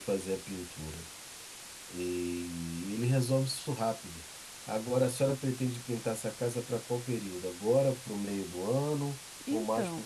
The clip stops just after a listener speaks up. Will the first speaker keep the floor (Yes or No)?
No